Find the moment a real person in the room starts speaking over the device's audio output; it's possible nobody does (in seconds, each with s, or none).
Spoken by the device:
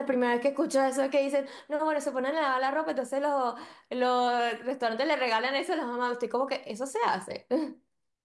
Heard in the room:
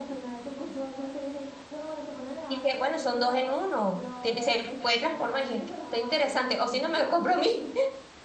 2.5 s